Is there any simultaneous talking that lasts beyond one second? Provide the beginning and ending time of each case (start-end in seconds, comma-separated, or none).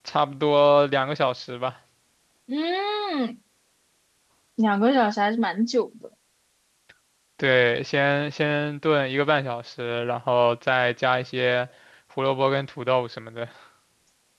none